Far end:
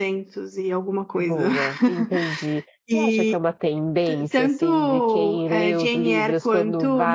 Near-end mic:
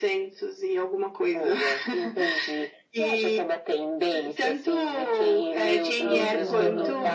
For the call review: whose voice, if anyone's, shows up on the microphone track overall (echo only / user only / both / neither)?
both